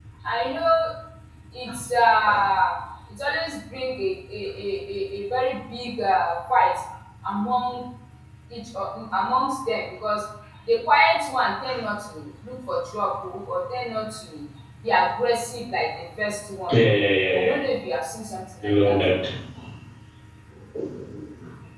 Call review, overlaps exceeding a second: none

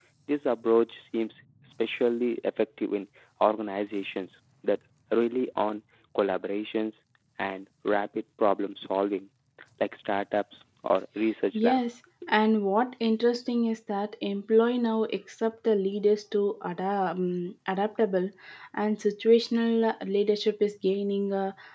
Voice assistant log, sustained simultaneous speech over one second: none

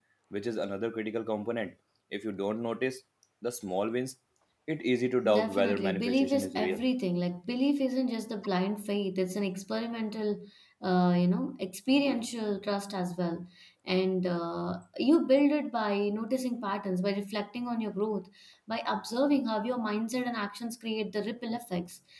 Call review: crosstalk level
present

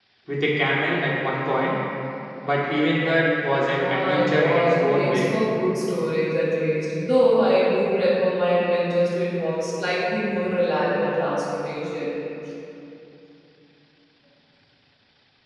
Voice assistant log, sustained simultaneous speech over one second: present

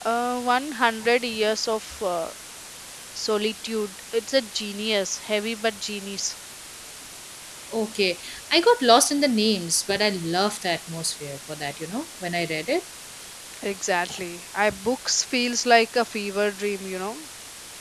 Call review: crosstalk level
none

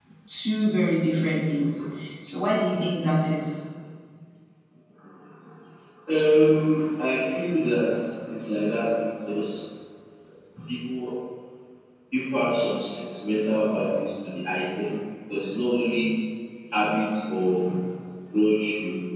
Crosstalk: none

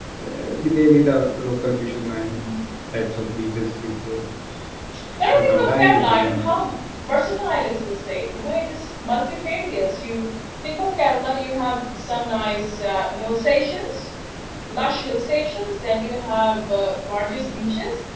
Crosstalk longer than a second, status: present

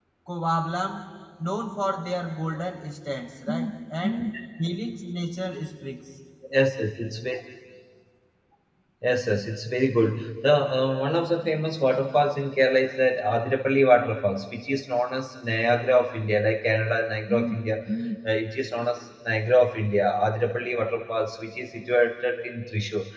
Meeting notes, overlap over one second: none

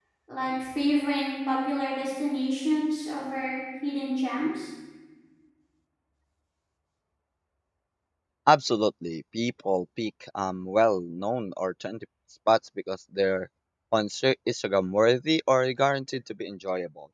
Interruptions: none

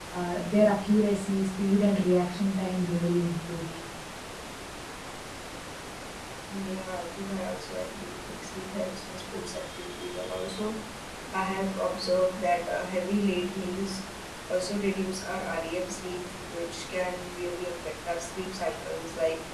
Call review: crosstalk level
none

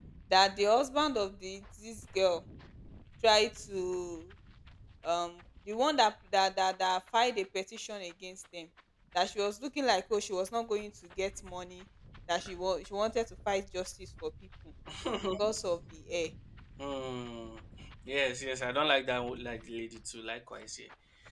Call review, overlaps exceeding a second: none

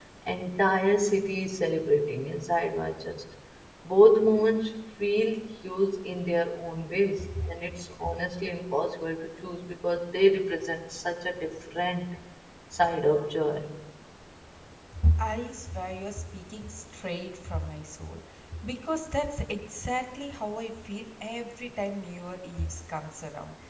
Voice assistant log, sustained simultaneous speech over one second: none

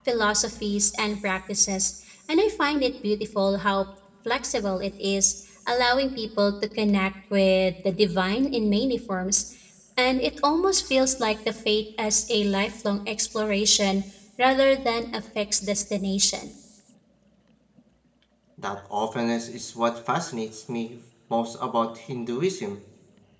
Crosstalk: none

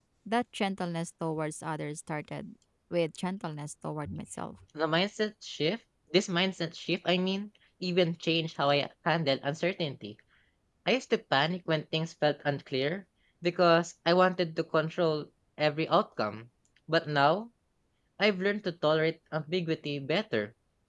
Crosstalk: none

